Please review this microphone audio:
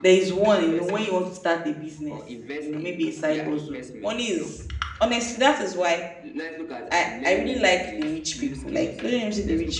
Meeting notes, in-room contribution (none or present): present